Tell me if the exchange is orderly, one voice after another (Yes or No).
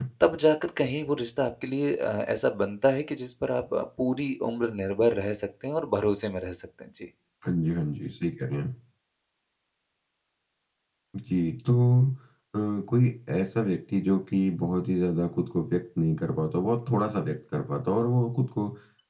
Yes